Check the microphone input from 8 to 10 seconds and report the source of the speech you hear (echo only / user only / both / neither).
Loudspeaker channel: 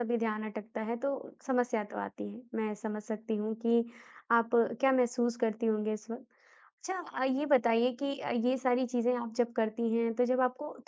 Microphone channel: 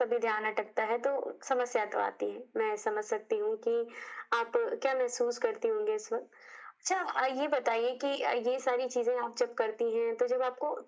echo only